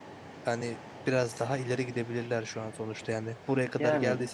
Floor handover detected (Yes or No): No